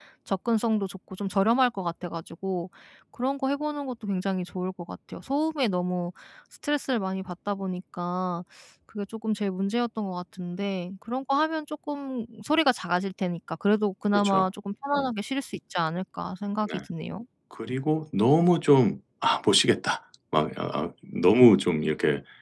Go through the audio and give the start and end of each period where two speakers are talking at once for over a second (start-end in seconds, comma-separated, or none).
none